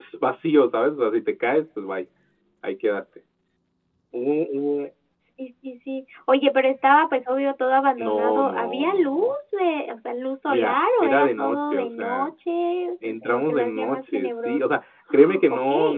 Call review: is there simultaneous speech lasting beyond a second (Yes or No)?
Yes